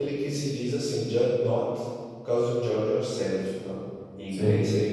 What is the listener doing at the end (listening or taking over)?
listening